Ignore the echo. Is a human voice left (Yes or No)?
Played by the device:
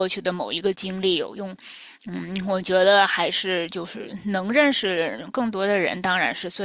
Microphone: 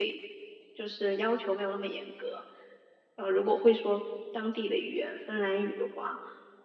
Yes